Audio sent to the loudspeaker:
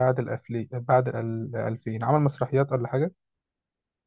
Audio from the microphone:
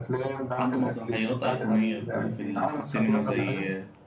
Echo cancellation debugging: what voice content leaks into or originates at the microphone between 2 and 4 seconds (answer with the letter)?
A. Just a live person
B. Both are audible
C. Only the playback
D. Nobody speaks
B